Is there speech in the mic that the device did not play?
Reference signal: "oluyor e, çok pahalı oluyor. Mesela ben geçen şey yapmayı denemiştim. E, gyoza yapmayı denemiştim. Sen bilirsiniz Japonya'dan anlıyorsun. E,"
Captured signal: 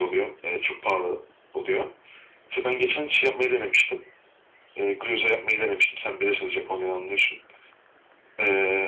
No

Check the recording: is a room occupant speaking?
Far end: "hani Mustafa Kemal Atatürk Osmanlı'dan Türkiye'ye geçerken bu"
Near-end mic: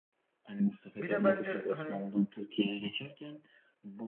Yes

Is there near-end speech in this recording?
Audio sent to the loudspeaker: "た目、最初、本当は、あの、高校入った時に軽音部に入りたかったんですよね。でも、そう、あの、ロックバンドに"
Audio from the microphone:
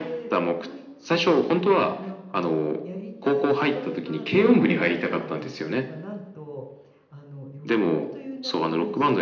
Yes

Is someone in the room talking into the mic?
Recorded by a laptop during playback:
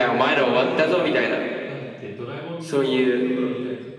Yes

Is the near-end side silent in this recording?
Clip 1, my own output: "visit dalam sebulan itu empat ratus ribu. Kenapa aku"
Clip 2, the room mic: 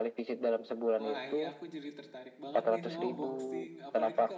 No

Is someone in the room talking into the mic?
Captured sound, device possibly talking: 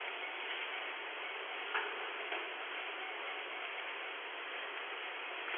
No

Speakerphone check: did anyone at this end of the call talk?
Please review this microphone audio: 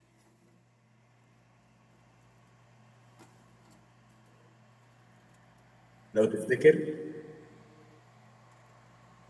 Yes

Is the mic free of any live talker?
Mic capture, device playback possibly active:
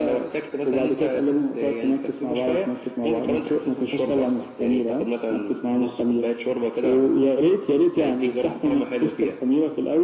Yes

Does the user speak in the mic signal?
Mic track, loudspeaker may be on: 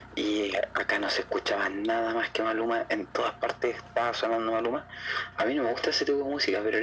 No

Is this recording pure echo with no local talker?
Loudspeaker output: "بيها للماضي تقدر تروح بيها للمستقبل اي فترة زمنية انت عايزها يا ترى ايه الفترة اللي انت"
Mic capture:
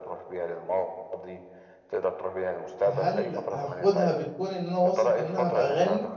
No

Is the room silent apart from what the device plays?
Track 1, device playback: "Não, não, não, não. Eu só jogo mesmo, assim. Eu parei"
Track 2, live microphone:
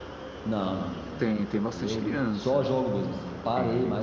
No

